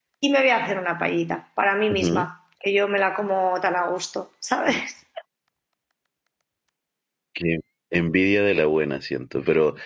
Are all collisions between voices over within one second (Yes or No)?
Yes